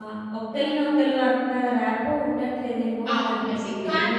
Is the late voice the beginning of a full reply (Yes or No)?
Yes